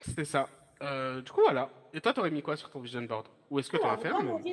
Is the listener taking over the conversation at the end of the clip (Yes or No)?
Yes